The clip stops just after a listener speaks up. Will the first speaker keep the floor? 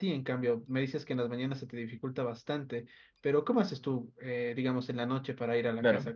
Yes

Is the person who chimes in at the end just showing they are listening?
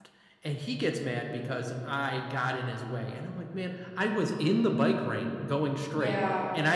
Yes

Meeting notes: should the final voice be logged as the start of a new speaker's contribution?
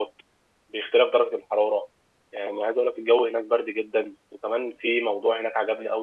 No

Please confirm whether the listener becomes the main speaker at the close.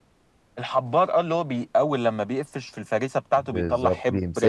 Yes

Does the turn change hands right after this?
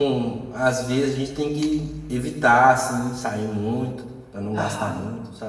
Yes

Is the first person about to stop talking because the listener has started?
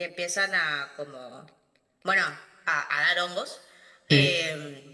No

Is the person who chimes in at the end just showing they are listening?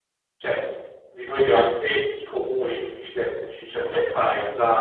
Yes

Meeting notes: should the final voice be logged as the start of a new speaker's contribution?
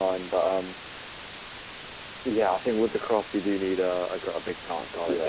Yes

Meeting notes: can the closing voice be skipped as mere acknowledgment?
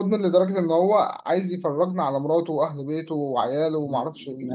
No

